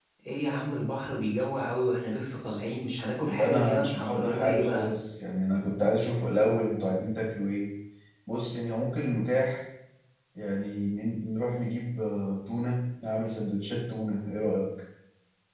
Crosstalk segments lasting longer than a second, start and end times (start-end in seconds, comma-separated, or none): 3.2-4.9